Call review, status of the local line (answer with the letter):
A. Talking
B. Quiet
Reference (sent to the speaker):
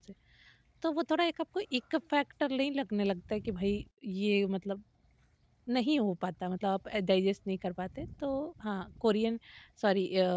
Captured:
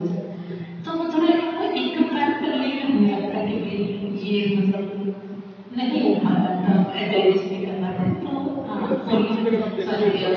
A